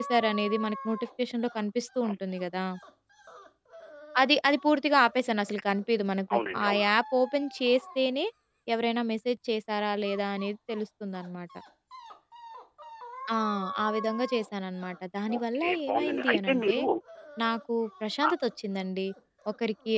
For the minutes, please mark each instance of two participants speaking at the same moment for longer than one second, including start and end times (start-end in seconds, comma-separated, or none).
15.4-16.8